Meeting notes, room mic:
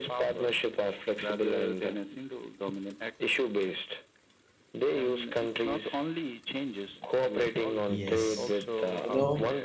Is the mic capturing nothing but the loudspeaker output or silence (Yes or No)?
No